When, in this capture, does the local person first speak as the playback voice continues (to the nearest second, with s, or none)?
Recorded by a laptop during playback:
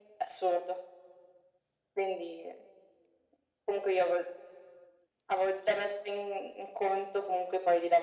none